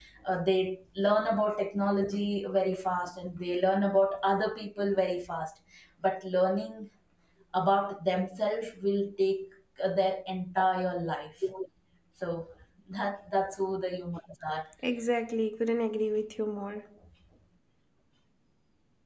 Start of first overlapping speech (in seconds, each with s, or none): none